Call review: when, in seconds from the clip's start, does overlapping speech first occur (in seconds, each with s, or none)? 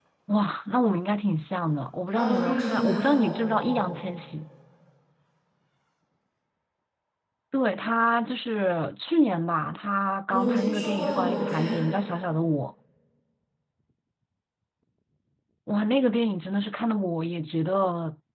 2.1 s